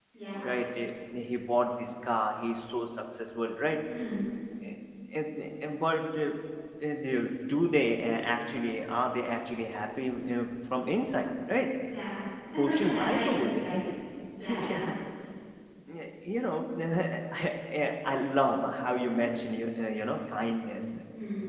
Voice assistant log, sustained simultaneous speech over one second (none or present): present